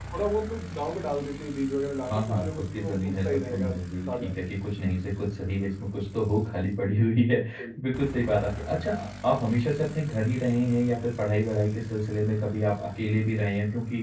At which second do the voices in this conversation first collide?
2.1 s

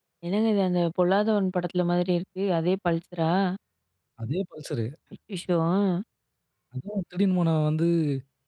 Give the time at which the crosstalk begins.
none

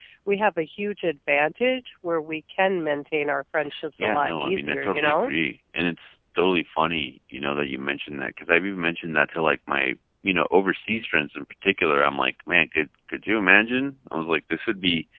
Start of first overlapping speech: 4.0 s

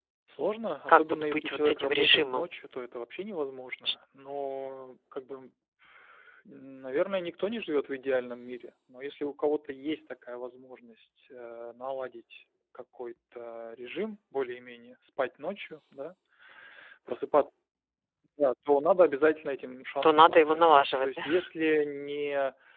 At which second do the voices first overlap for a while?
0.9 s

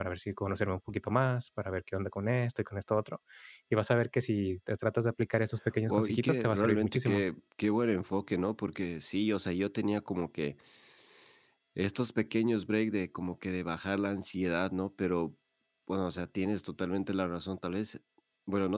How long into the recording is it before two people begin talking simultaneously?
5.9 s

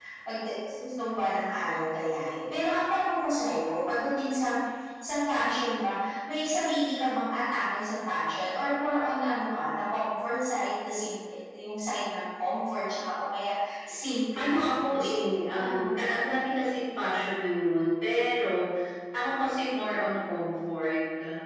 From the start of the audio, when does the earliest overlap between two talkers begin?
14.4 s

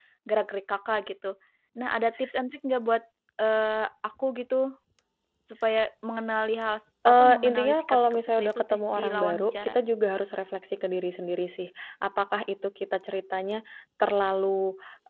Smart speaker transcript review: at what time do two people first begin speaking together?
7.0 s

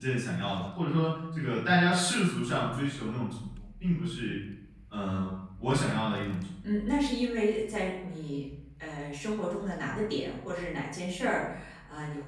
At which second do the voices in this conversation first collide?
none

